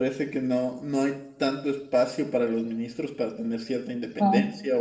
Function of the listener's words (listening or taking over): listening